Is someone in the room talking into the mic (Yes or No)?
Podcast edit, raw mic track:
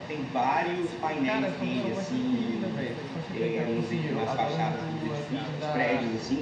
Yes